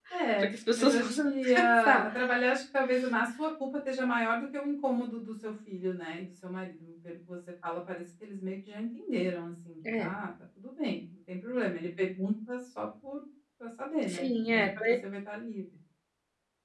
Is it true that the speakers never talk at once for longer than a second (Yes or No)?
No